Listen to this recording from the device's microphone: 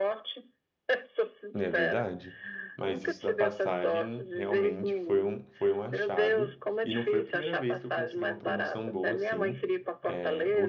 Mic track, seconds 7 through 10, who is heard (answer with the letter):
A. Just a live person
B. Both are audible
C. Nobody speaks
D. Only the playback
B